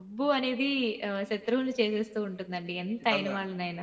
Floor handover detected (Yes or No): Yes